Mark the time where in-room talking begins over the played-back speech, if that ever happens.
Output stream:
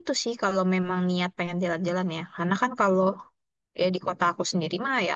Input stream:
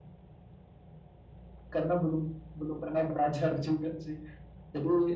2 s

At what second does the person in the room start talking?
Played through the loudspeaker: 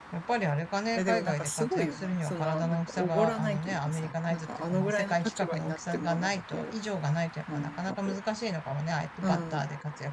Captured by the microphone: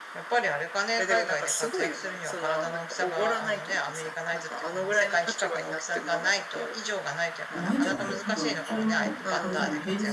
8 s

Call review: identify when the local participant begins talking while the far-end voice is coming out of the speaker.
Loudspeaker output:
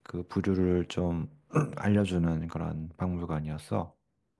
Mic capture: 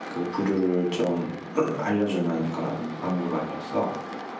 none

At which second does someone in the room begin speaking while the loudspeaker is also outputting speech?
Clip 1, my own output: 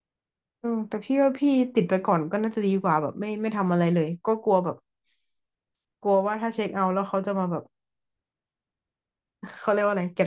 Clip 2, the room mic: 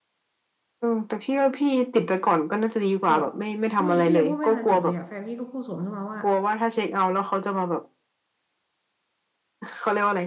3 s

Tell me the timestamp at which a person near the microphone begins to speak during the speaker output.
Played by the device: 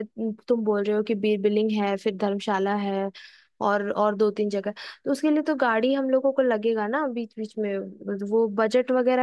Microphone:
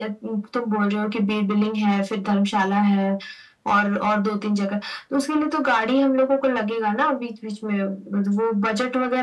none

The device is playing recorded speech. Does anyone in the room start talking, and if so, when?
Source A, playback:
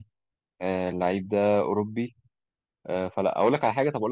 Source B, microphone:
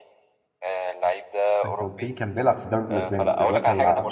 2 s

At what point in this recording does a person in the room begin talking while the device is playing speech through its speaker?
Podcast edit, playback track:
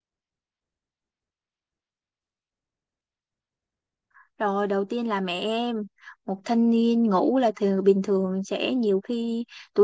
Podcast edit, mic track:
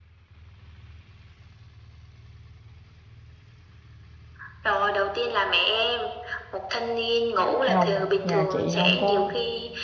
8 s

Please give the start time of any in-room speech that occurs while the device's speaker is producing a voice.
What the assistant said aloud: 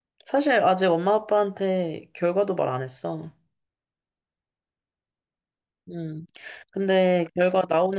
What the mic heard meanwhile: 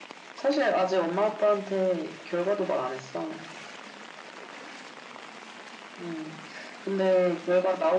none

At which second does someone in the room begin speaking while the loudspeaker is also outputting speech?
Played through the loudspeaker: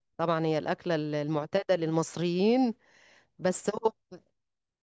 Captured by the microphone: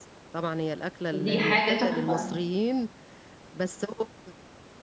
1 s

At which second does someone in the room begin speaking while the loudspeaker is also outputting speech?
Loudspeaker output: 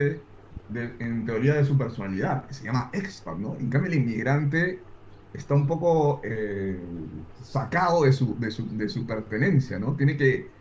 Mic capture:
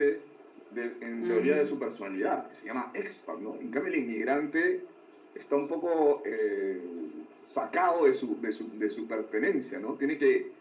1 s

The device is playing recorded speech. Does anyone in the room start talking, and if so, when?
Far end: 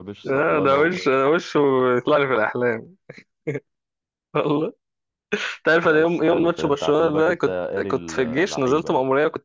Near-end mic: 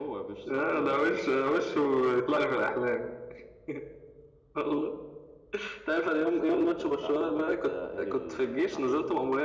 none

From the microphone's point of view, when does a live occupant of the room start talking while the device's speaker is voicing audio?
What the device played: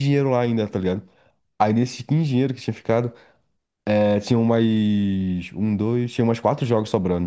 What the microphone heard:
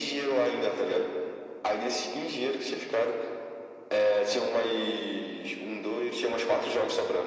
none

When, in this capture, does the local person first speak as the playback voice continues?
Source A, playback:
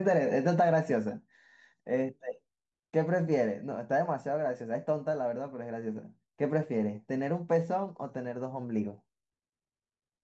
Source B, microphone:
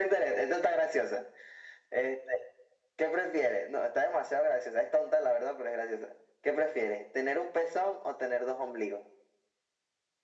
none

